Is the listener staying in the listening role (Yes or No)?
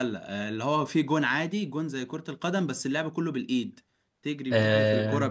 Yes